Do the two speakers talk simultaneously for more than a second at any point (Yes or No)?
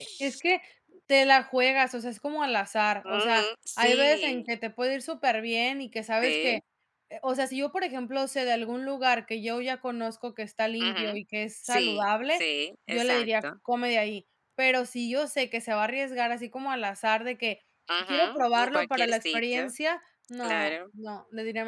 Yes